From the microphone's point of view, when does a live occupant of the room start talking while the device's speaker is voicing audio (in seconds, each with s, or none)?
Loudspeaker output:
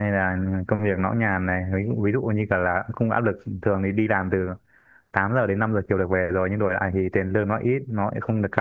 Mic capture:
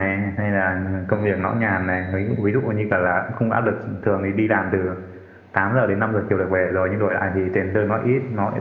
none